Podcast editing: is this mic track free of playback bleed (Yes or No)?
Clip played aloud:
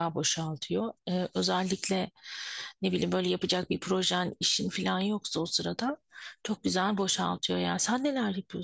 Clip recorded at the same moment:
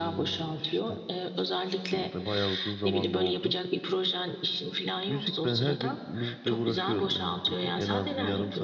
No